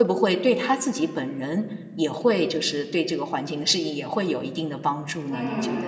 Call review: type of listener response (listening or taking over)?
taking over